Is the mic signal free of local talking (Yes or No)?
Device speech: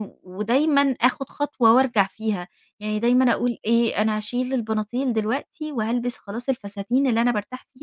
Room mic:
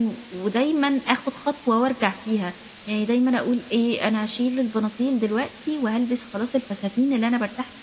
Yes